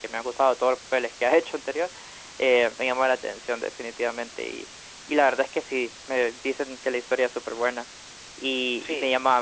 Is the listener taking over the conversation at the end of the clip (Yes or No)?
No